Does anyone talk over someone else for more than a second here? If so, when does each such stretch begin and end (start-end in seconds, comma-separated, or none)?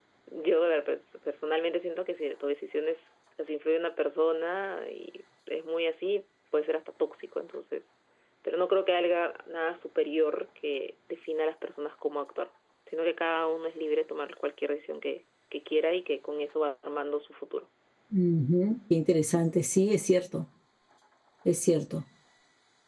none